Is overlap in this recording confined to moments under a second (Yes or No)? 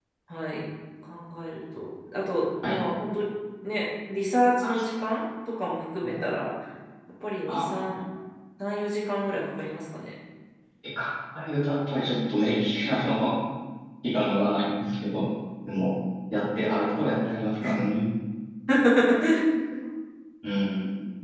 Yes